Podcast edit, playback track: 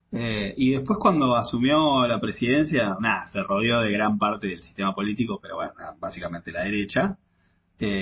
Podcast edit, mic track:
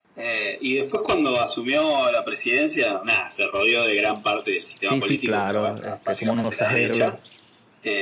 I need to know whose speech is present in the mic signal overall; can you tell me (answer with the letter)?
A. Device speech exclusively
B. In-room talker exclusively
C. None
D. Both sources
D